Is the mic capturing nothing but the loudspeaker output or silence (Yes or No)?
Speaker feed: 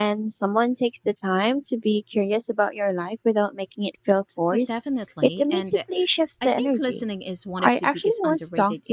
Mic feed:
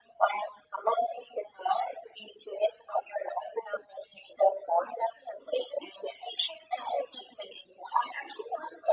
Yes